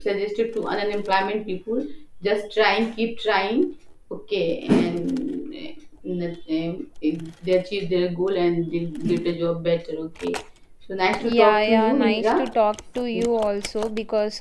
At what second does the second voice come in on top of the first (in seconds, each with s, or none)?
11.2 s